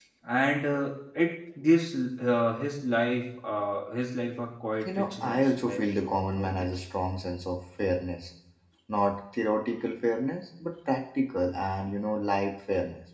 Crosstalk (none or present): present